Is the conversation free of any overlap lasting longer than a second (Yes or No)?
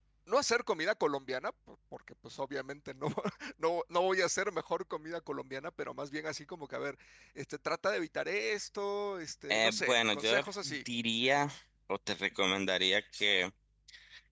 No